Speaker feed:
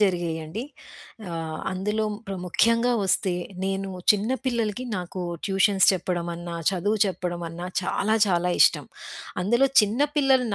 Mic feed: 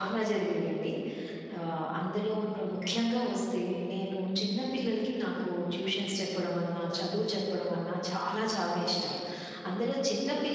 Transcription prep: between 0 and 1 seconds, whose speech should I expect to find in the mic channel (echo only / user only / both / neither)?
echo only